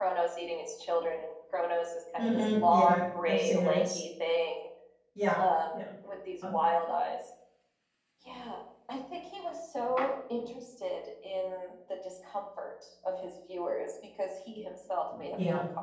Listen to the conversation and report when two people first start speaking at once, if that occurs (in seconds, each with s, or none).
2.2 s